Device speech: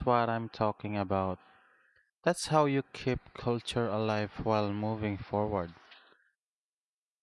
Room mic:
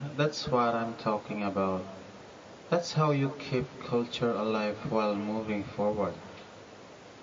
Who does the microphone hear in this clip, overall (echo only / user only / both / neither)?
echo only